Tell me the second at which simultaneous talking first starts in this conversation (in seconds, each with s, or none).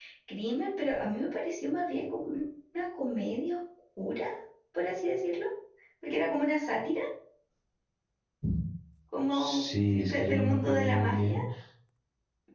9.3 s